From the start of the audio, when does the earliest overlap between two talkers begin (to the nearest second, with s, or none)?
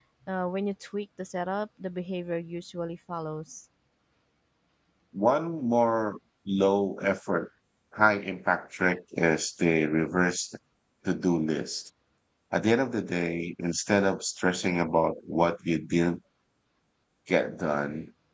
none